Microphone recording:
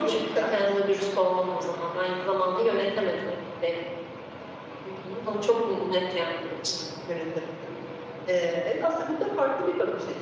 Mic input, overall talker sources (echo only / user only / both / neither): echo only